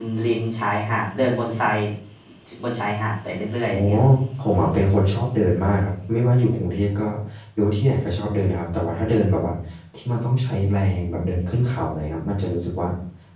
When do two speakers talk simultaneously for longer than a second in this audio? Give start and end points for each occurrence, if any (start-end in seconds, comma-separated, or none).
none